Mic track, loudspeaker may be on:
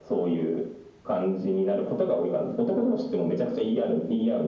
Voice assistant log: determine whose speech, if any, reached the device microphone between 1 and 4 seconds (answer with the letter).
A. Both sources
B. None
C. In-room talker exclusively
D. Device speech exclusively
D